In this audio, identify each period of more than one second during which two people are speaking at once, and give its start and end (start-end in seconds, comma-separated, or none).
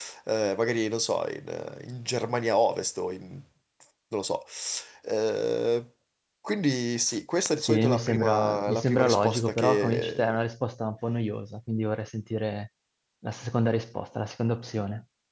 7.6-10.3